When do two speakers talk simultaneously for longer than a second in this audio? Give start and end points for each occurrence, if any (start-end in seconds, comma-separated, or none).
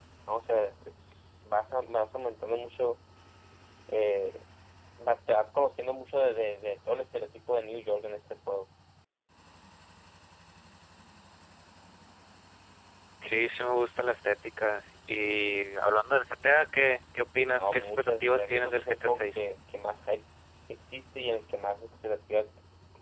17.6-19.4